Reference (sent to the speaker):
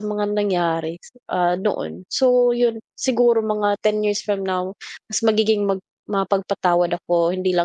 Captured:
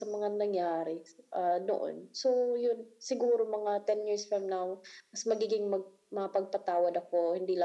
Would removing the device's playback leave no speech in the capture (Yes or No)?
Yes